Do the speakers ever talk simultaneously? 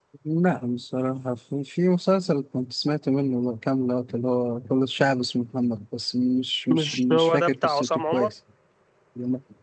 Yes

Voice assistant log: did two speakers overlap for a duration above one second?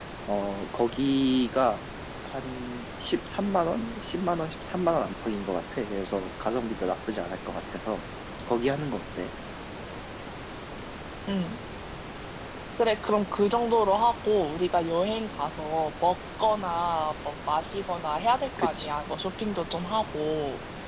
No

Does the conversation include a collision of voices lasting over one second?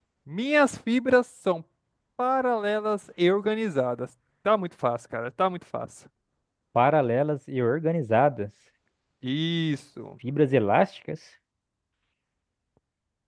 No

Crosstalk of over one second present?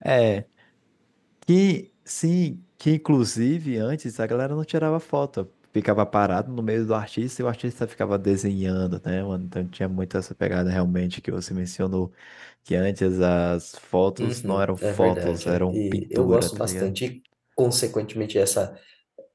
Yes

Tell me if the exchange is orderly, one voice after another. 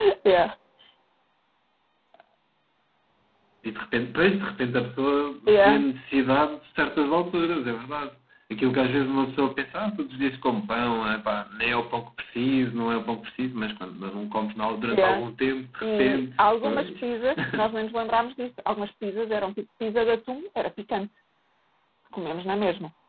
No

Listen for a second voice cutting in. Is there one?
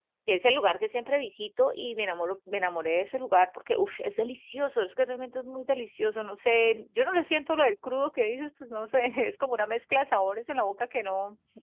No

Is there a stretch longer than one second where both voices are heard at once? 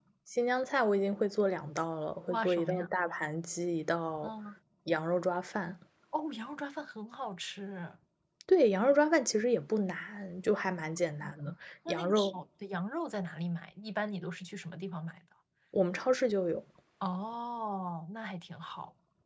Yes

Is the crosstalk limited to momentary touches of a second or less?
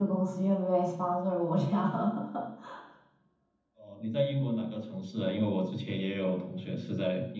Yes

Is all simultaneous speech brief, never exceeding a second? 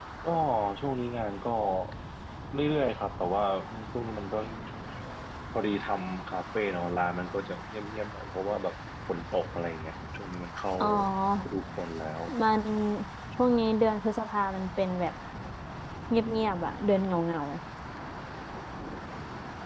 Yes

